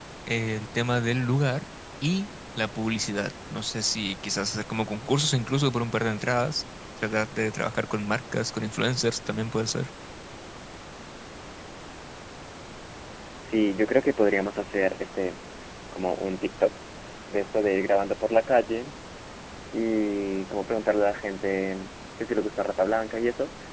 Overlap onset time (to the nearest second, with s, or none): none